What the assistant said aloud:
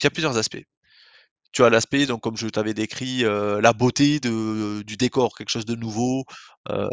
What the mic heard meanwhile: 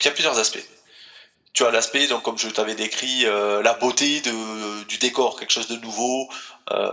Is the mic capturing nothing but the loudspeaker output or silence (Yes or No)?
Yes